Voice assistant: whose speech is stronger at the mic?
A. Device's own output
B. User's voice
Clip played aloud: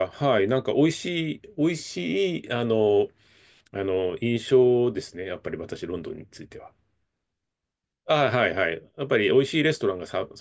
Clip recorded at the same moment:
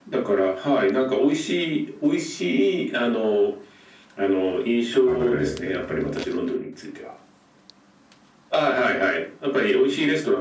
A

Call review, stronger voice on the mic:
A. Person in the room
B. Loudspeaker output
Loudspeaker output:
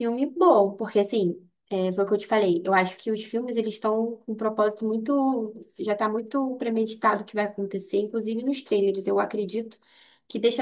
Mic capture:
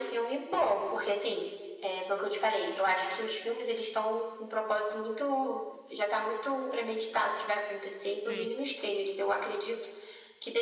B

